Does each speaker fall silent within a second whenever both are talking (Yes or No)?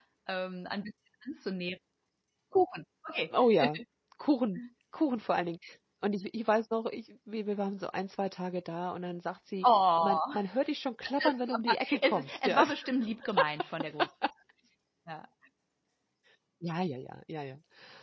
No